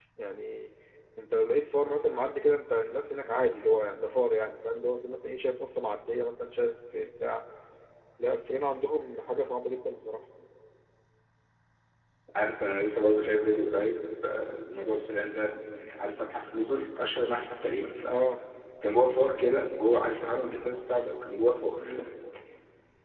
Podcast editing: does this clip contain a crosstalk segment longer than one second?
No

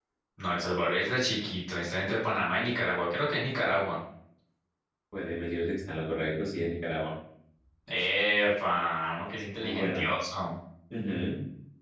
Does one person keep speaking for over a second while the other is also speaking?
No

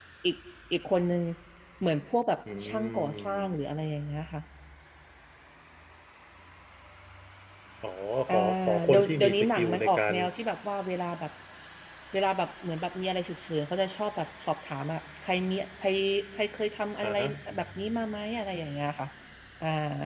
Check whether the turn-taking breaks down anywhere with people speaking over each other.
Yes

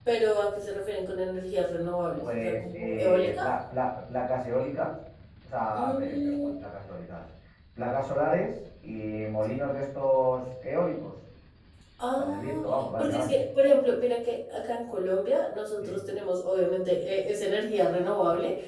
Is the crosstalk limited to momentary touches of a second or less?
No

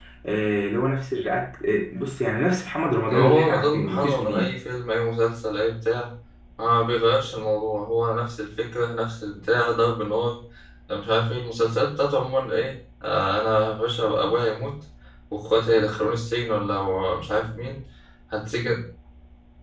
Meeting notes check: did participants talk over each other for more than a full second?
Yes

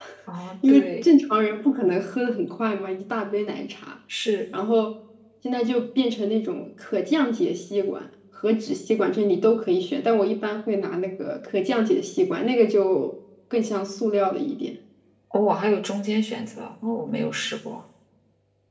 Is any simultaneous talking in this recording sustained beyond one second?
No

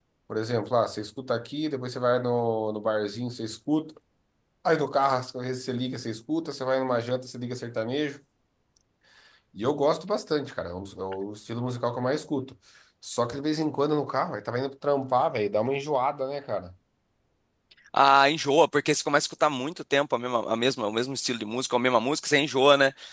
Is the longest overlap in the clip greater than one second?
No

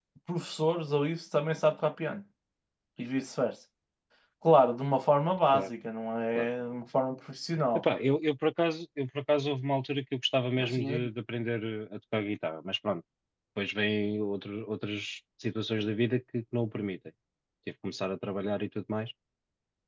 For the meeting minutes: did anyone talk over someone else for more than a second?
No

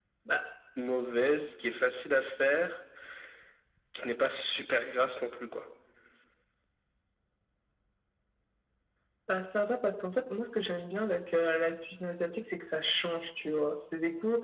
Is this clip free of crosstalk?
Yes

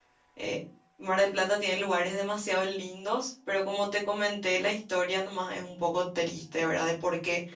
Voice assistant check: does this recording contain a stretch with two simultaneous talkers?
No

